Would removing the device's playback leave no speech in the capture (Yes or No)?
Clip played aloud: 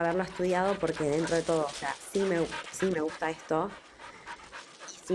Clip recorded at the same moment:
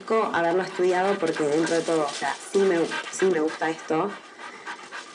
Yes